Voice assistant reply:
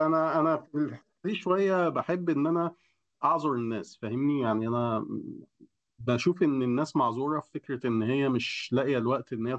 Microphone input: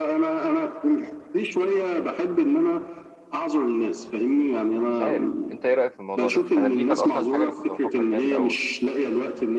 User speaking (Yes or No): Yes